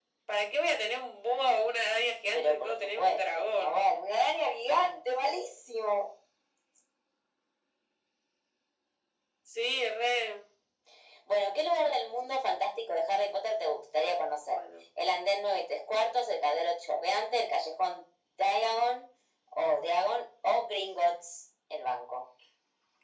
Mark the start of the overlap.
2 s

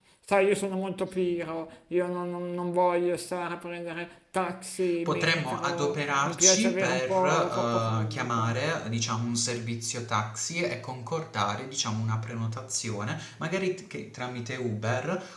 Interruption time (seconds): 5 s

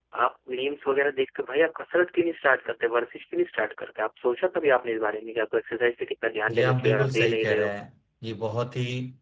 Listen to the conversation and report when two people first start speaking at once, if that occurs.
6 s

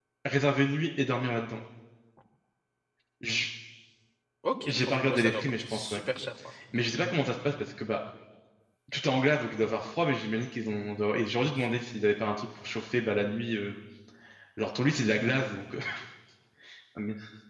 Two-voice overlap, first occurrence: 5 s

